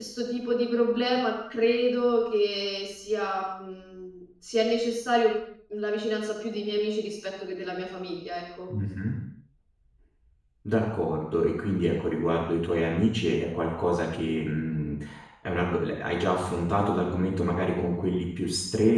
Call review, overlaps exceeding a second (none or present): none